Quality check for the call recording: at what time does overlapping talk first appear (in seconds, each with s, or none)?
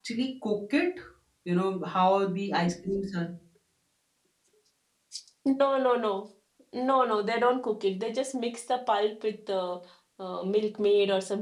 none